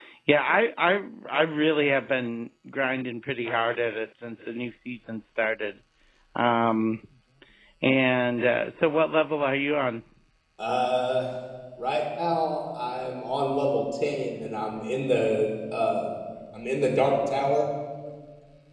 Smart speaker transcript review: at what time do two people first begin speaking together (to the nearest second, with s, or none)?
none